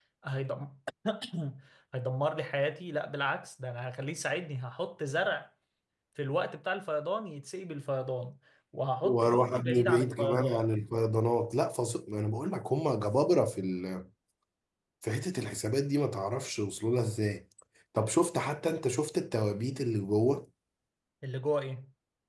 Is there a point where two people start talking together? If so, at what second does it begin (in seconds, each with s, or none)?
9.0 s